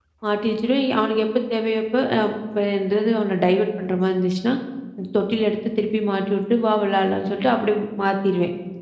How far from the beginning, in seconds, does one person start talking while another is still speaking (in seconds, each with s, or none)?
none